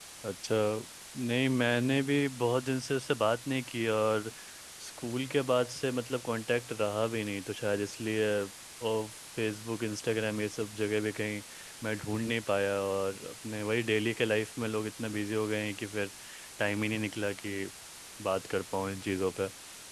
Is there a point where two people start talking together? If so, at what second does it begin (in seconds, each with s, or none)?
none